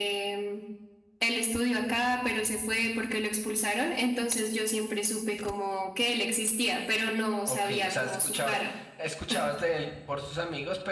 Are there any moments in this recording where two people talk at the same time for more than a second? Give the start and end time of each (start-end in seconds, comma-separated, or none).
7.5-8.7